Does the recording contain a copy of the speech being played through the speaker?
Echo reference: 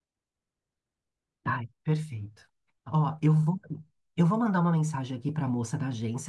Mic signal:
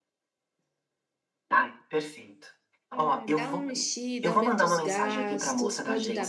Yes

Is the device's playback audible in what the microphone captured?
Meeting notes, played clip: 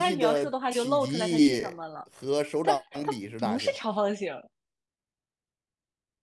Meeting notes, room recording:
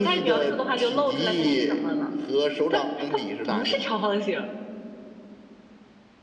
Yes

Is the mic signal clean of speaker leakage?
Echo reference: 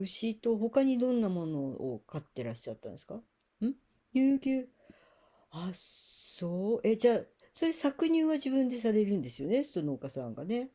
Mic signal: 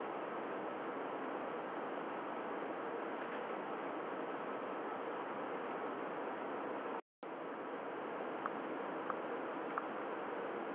Yes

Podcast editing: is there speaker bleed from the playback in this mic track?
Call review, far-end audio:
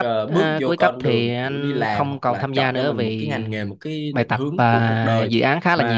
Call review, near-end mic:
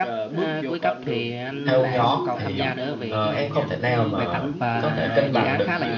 Yes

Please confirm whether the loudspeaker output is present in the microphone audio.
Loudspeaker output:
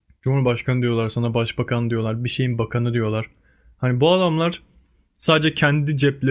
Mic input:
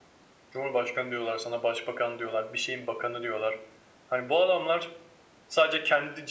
Yes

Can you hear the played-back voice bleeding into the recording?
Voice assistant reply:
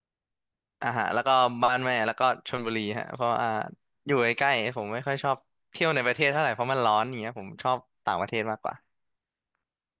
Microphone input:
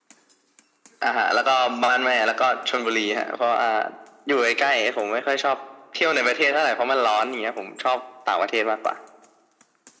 Yes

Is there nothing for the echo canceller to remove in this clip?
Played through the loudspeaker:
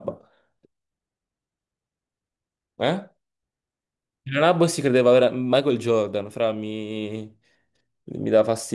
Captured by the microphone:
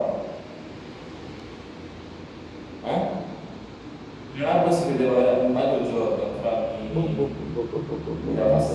No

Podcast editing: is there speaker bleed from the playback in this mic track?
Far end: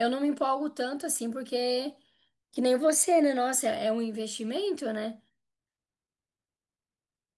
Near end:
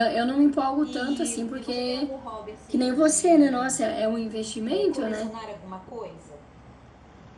Yes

